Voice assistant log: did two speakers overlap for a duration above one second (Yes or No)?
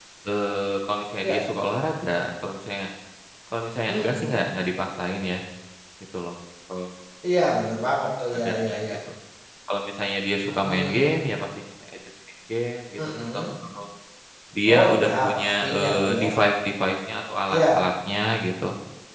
Yes